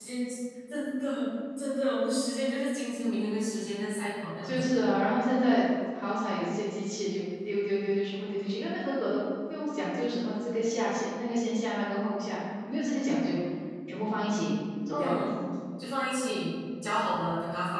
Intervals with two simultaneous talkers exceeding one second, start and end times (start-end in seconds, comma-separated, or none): none